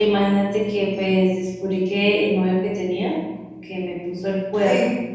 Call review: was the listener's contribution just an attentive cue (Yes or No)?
Yes